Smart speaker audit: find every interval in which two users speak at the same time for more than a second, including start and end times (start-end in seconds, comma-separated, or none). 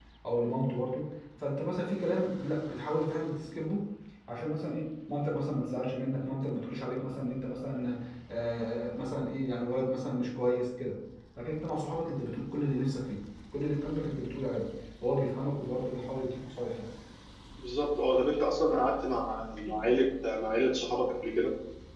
none